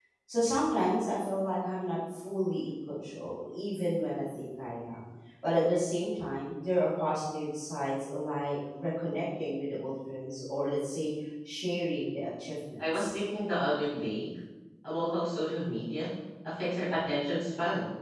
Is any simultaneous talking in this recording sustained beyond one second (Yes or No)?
No